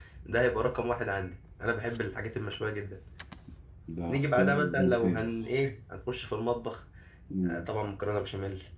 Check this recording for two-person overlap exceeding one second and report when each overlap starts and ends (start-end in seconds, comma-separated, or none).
4.1-5.3